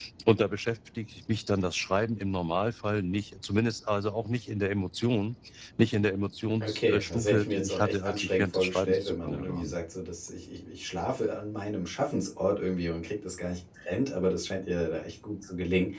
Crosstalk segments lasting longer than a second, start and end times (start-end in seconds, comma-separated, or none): 6.6-9.8